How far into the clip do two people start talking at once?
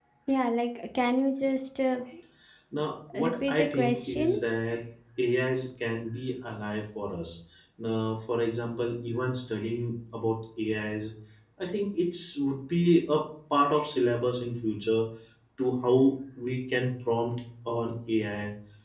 3 s

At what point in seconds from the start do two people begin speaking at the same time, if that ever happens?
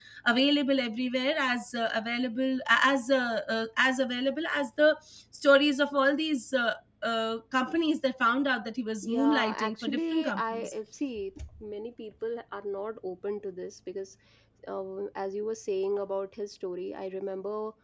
9 s

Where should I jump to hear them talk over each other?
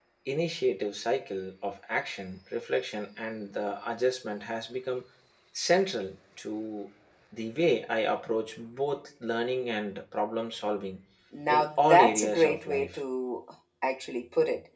11 s

